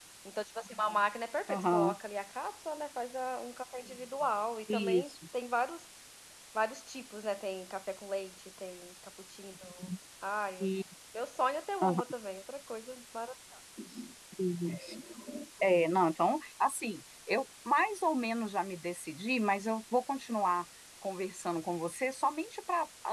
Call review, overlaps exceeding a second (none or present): none